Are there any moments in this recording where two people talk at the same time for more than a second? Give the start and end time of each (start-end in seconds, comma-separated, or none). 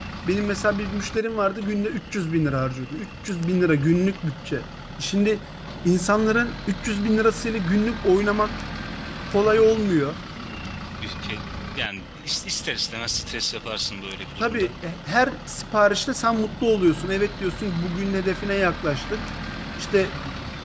none